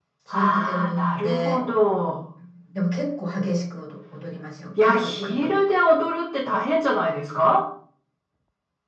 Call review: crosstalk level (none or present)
present